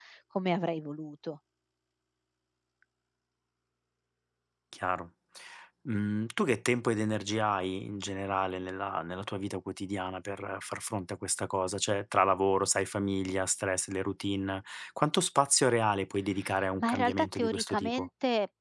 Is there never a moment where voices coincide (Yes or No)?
No